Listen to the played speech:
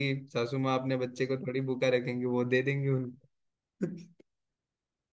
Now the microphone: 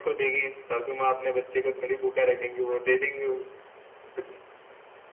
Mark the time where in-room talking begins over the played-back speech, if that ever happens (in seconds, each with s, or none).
none